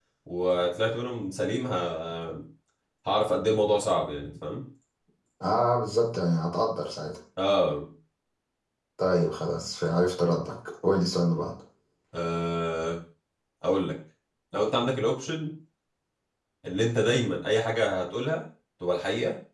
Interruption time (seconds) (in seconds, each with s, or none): none